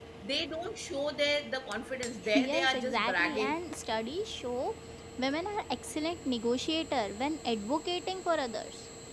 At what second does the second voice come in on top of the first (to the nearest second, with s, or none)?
2 s